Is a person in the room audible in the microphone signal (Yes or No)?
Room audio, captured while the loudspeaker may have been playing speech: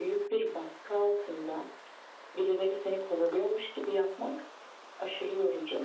No